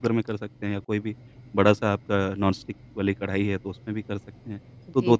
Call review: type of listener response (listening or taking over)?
listening